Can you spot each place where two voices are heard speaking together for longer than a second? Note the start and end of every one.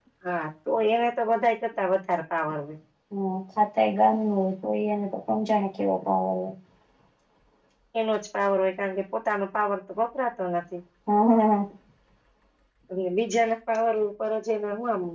none

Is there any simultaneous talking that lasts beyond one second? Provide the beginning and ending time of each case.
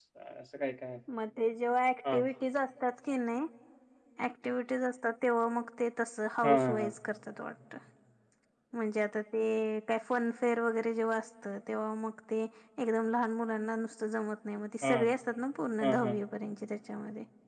none

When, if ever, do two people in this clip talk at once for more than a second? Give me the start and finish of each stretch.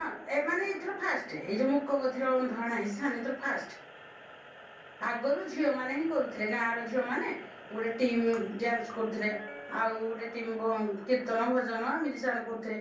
none

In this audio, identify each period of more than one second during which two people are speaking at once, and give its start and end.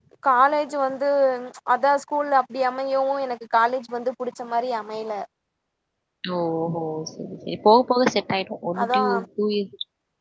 none

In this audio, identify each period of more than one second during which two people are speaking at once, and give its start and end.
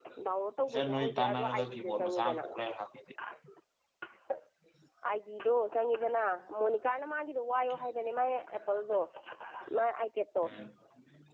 0.7-2.4

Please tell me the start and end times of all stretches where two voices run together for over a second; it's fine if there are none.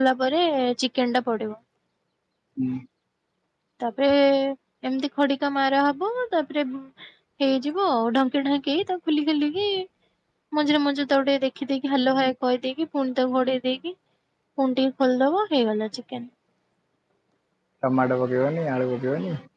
none

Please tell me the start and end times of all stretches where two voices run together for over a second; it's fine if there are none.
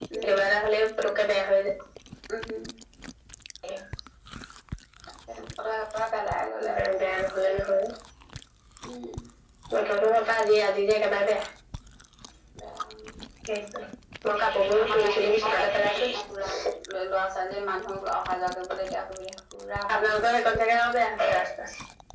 none

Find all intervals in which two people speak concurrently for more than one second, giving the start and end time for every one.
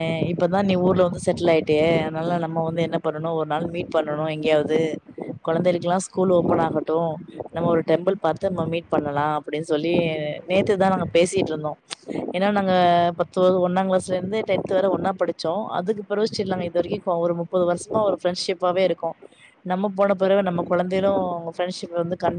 none

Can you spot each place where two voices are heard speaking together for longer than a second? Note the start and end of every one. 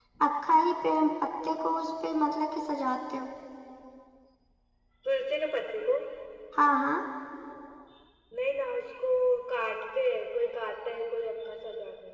none

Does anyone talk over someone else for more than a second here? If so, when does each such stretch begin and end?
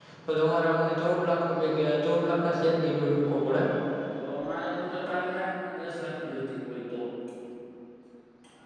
none

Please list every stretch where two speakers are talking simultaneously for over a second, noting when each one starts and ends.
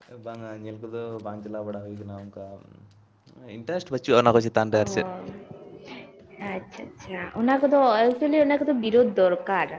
none

